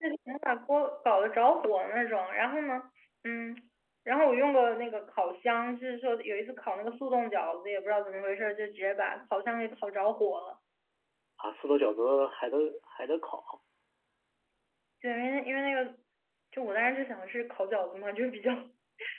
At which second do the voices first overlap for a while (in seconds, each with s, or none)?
none